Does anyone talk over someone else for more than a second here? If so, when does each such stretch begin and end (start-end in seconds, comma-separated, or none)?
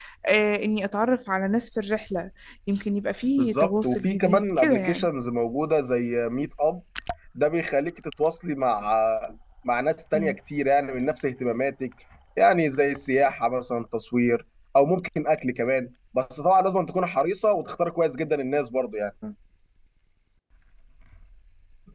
3.4-5.1